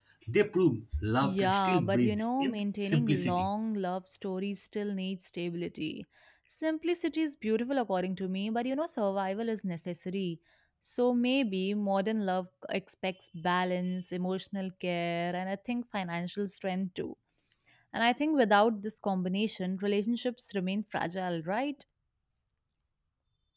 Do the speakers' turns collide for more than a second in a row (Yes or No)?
Yes